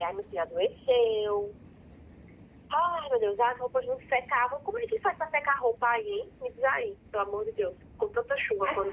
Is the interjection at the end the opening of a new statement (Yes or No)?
Yes